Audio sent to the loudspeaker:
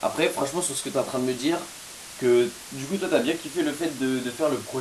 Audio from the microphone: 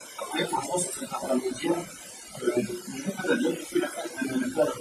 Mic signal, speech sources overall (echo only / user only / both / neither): echo only